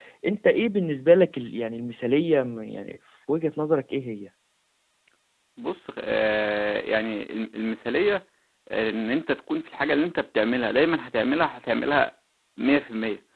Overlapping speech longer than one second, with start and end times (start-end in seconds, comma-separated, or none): none